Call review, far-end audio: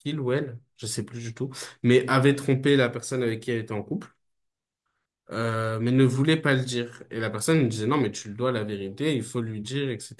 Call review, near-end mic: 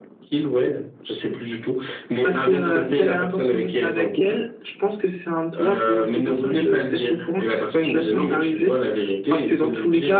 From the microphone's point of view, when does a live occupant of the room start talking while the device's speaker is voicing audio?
2.2 s

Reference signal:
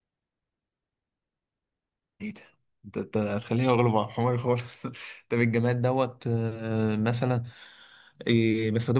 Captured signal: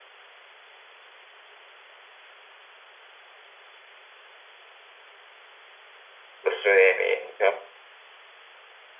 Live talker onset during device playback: 6.4 s

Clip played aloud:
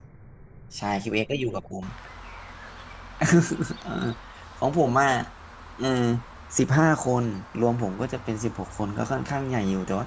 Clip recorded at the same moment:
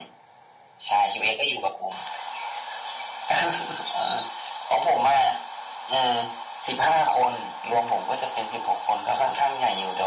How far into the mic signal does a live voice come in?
none

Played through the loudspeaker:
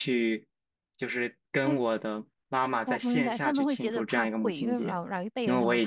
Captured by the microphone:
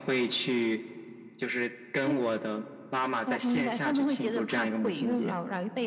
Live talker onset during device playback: none

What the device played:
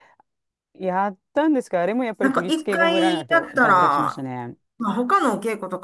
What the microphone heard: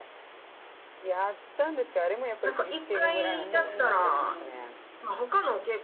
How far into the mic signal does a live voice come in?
3.2 s

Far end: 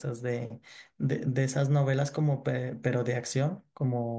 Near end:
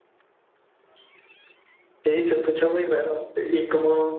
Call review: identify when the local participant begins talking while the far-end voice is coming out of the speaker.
2.0 s

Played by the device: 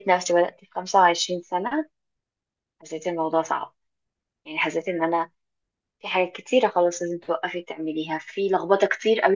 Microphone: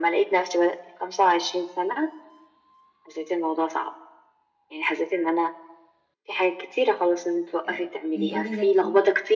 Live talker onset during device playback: 7.7 s

